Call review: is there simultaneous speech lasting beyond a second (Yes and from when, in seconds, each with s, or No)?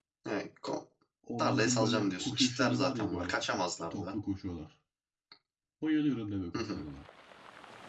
Yes, from 1.4 s